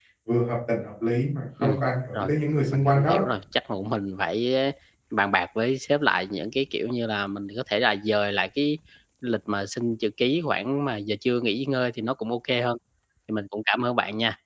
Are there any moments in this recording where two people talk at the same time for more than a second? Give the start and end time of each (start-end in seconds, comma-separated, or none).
none